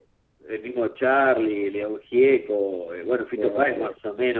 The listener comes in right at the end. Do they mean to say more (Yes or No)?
No